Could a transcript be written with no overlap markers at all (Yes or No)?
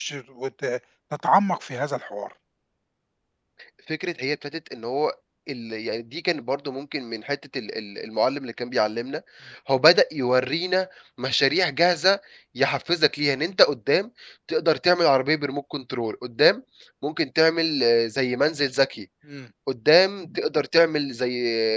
Yes